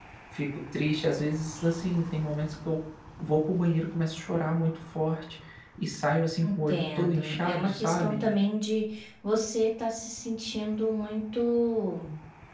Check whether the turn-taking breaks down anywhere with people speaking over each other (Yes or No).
Yes